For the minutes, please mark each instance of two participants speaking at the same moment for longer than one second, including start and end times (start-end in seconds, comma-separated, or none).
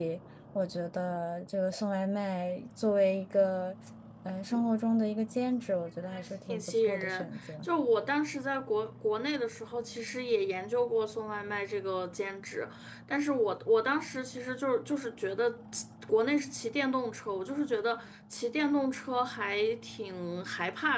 6.1-7.7